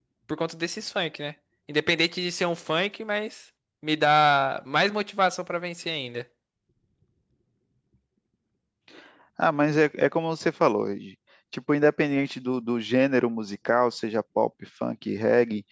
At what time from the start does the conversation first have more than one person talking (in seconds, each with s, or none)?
none